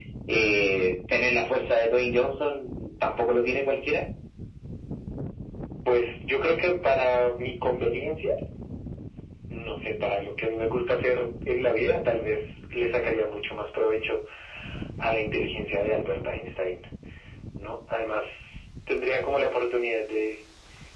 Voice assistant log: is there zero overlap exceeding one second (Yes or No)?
Yes